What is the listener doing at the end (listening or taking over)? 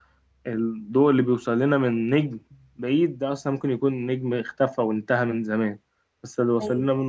listening